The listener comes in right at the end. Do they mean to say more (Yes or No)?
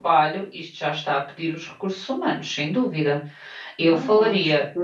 Yes